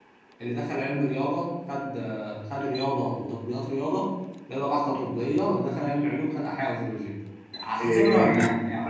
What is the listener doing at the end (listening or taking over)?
taking over